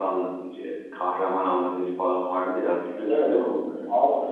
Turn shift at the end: Yes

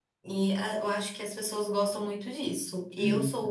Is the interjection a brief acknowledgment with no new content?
Yes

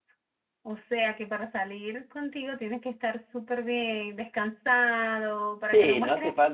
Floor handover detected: Yes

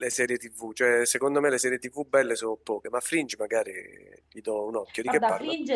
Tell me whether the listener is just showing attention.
No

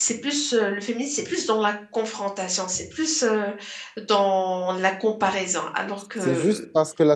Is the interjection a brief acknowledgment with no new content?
No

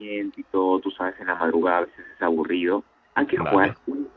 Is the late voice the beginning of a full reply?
No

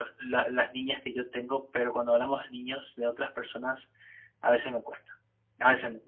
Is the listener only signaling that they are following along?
Yes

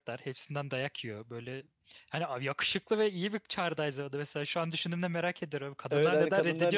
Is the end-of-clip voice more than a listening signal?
Yes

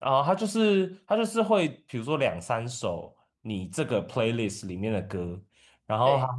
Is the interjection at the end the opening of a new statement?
No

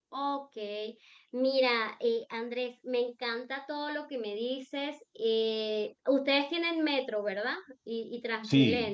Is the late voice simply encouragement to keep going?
No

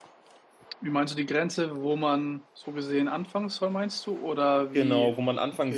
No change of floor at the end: No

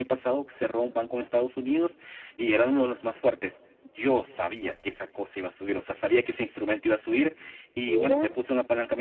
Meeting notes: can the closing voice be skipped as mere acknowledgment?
Yes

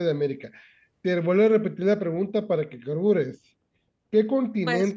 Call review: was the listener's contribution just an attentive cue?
Yes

